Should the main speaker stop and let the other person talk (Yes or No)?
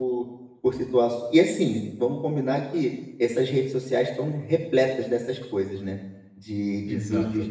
No